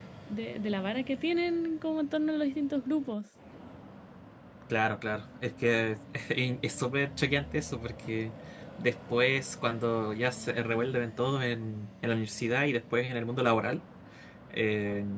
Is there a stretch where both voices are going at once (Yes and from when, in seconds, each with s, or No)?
No